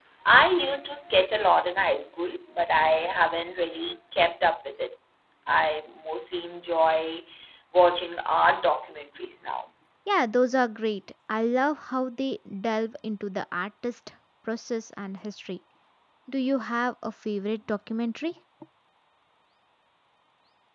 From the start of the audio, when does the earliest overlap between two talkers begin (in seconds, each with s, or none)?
none